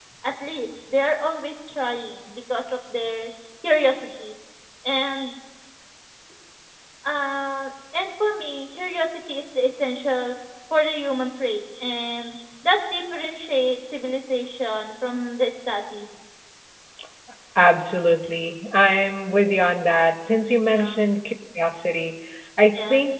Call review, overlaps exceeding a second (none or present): none